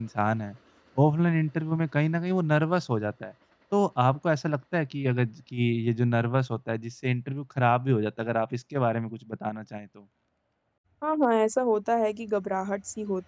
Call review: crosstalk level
none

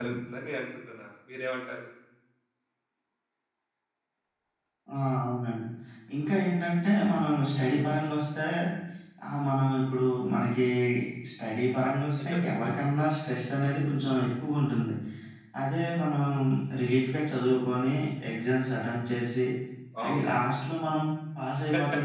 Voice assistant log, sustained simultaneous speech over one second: none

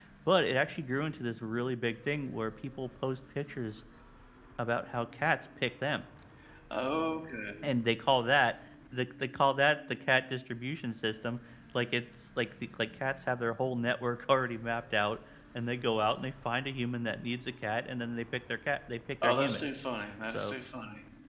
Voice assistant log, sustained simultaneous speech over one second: none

